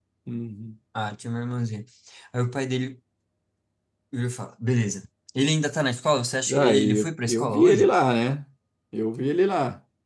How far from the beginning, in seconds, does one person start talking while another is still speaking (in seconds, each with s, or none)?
6.5 s